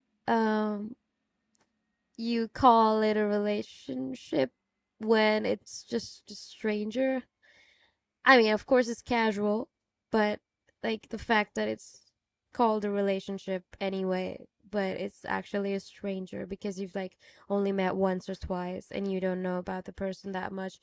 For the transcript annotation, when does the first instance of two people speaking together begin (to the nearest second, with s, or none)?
none